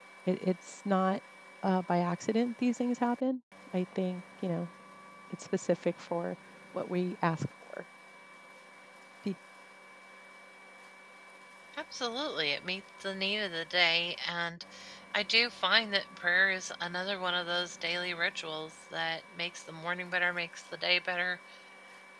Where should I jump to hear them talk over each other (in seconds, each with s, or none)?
none